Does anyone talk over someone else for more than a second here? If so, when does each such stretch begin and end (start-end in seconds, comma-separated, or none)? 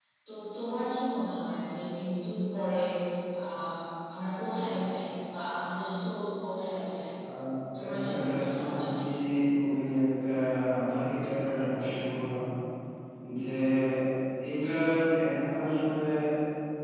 7.8-9.0